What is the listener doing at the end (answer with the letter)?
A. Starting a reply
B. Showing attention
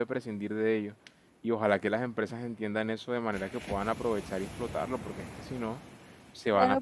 A